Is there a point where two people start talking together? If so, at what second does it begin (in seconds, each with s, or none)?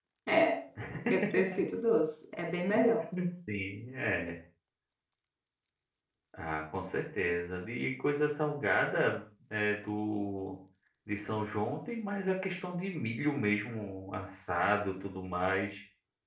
none